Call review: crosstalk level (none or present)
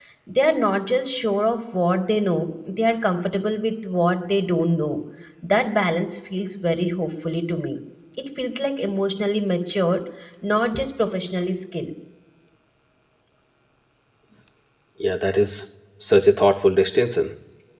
none